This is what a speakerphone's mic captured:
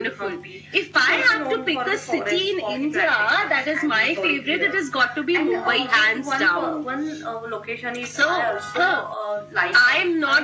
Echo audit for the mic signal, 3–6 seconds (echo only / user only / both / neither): echo only